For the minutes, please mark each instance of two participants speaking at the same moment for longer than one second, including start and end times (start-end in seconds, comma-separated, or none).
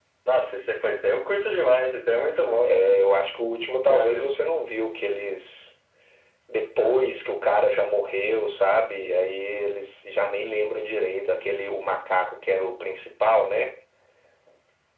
none